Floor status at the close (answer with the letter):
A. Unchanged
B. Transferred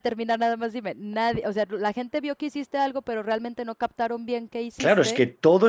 B